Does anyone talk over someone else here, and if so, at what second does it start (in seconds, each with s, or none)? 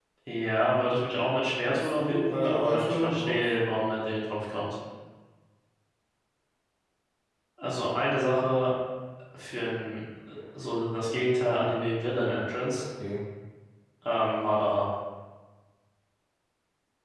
1.7 s